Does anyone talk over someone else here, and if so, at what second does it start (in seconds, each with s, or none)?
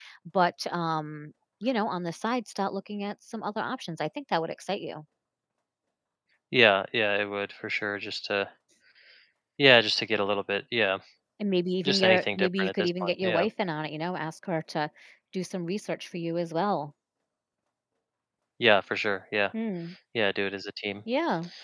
11.8 s